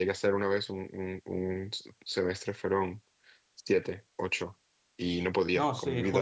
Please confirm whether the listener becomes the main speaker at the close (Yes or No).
Yes